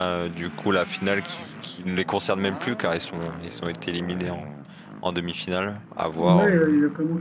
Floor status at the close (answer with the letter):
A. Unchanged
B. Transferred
B